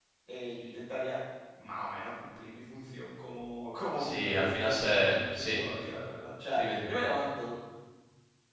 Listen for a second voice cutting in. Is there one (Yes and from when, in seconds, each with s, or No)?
Yes, from 4.0 s